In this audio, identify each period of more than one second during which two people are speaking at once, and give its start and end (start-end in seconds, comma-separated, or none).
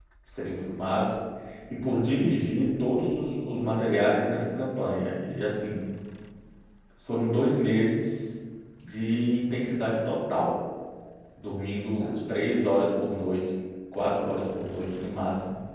12.0-13.4